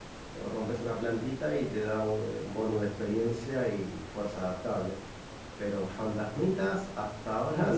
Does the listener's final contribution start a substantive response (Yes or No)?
Yes